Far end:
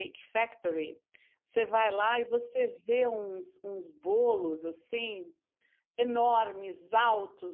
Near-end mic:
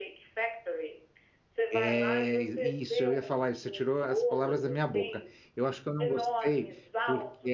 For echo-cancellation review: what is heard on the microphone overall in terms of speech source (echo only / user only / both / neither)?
both